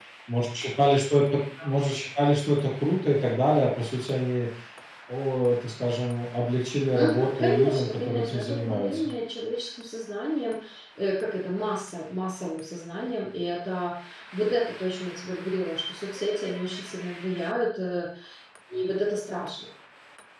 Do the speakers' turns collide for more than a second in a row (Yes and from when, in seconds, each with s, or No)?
Yes, from 6.9 s